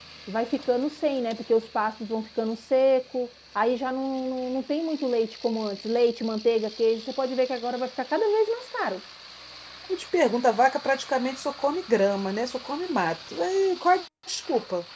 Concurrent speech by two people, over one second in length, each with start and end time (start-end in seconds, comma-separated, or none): none